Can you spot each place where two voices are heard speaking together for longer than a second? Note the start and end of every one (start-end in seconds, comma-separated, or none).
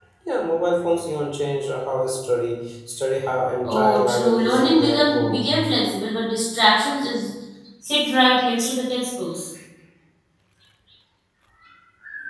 3.6-5.6